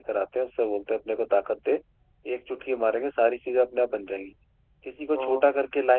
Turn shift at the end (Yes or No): No